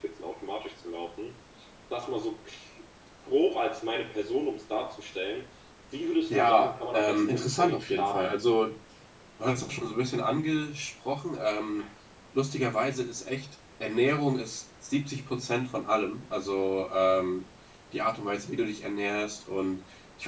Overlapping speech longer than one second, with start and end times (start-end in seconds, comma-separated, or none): 6.3-8.3